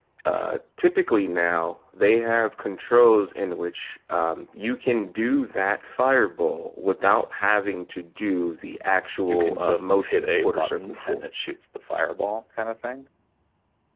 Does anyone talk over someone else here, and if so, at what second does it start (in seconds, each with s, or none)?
9.3 s